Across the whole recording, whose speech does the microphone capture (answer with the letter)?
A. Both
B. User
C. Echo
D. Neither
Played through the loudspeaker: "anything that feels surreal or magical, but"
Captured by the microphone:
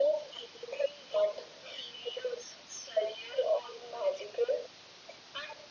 C